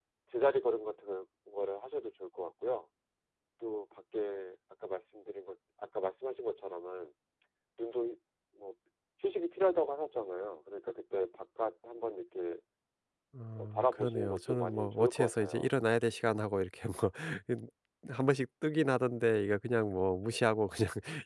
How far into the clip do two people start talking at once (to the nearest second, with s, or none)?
14 s